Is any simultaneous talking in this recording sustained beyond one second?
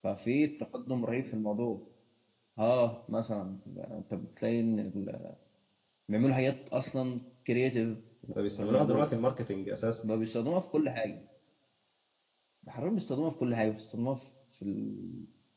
No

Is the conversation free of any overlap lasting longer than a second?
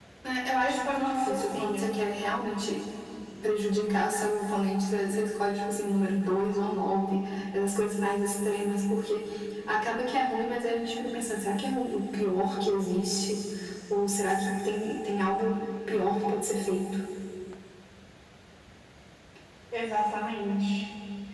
No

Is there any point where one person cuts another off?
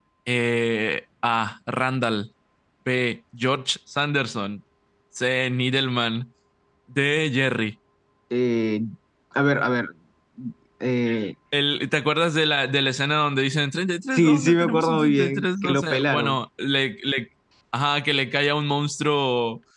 Yes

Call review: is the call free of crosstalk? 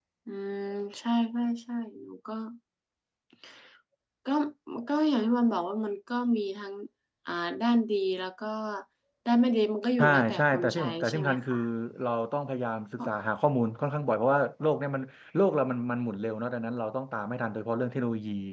No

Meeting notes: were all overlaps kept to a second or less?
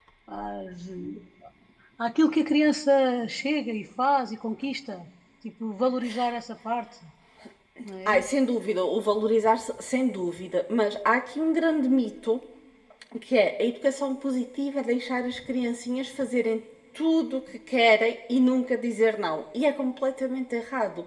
Yes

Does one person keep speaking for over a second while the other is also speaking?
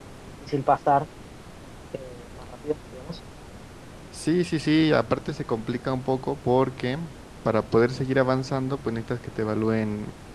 No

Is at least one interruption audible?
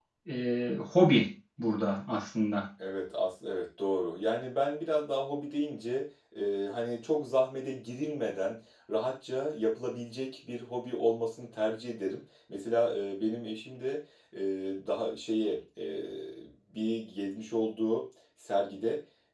No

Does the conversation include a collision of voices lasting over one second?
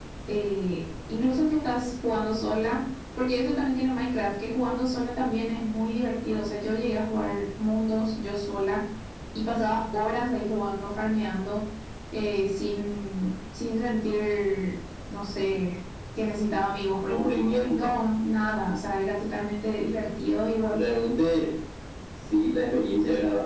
No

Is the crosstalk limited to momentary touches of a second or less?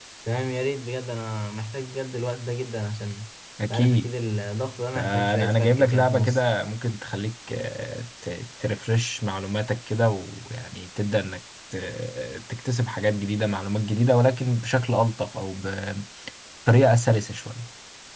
No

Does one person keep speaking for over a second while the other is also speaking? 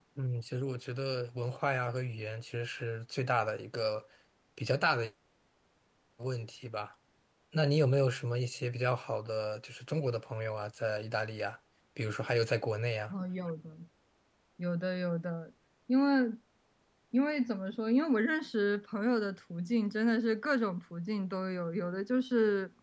No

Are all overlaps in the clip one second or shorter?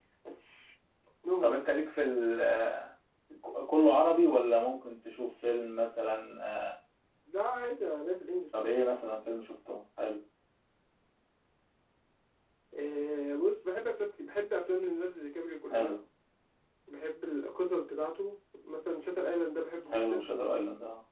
Yes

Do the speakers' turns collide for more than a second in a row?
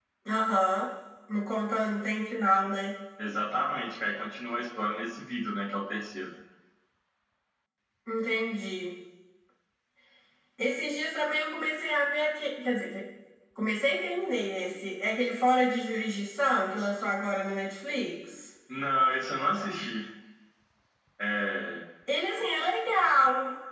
No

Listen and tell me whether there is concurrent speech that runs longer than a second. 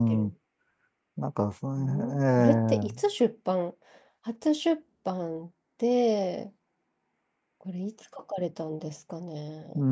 Yes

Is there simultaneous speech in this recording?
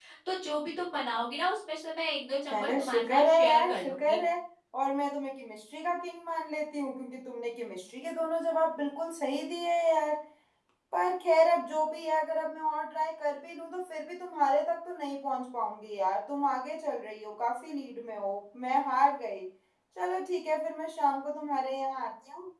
Yes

